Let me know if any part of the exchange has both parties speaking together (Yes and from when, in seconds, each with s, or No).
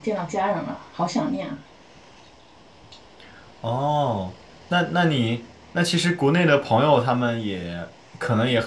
No